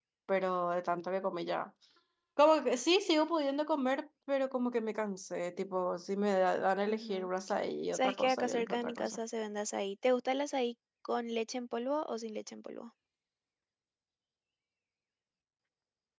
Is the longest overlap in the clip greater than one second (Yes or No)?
Yes